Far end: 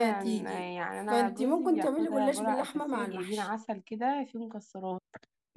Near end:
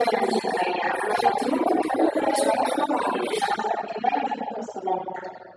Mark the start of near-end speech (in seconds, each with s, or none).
none